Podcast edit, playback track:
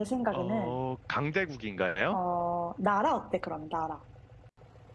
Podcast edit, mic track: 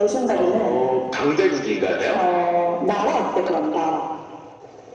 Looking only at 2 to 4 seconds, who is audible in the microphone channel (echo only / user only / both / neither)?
echo only